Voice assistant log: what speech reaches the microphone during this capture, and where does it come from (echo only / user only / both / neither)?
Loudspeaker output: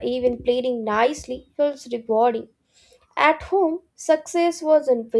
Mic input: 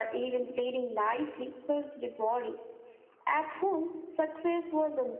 echo only